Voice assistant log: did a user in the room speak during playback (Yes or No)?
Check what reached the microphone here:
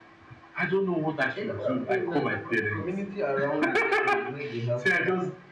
Yes